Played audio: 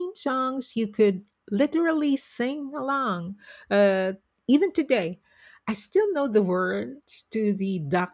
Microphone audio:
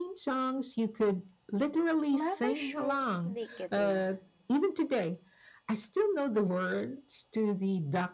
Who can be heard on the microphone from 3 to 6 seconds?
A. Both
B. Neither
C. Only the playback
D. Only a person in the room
A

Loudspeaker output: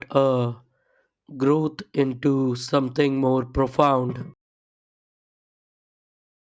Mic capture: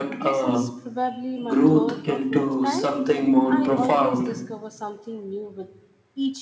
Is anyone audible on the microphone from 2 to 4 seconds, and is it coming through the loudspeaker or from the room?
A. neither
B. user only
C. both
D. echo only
C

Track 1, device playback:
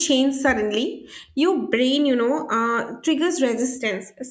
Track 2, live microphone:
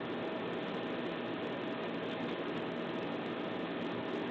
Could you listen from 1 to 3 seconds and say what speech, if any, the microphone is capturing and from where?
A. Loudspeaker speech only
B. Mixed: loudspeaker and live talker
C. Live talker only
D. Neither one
D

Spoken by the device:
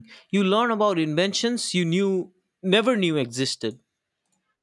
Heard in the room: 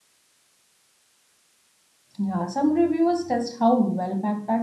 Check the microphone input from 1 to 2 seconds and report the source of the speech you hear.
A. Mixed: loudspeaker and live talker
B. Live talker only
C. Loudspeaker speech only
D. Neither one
D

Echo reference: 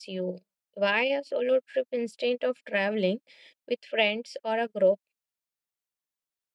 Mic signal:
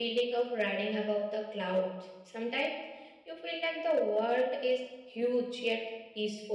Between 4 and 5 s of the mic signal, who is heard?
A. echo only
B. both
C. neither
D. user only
D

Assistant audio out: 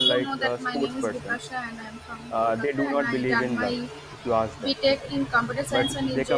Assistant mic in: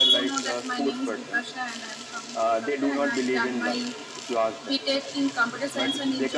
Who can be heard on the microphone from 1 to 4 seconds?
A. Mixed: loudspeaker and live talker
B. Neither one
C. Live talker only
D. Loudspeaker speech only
D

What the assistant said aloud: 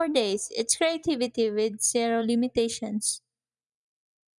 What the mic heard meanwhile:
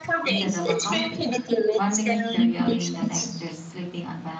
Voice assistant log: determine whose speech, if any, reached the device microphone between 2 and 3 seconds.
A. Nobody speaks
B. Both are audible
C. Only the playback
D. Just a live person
B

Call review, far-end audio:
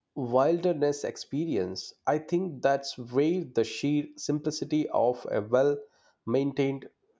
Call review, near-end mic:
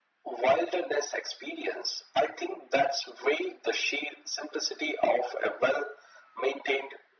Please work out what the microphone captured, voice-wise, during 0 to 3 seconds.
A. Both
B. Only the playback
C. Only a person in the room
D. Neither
B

